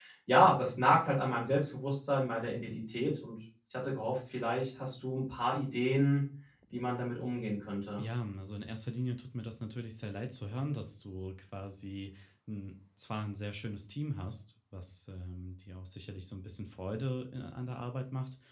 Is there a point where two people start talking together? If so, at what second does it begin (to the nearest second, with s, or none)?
none